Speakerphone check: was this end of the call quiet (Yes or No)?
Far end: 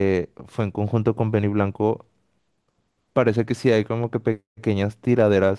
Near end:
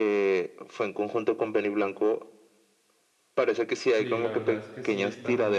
No